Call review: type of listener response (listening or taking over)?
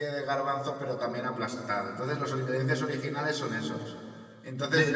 listening